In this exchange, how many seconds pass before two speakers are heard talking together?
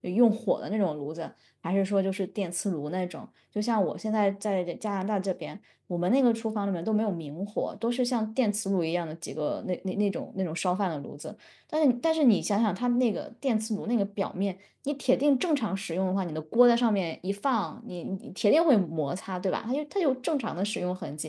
none

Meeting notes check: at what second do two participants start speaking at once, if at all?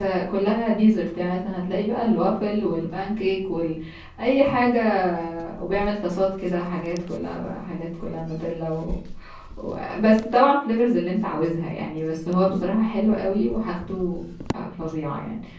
none

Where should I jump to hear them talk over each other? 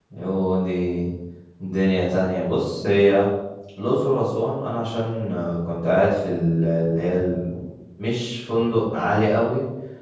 none

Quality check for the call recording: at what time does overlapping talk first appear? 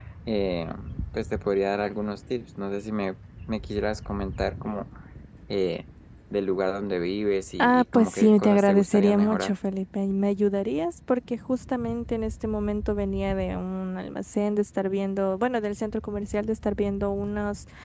8 s

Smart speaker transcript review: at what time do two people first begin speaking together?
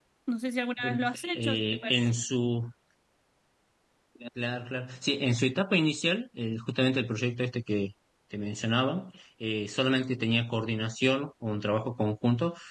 1 s

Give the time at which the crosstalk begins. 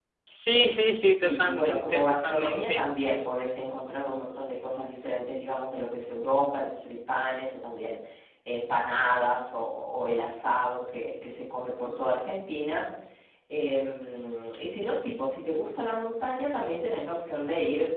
1 s

